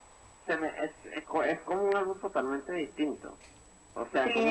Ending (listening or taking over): listening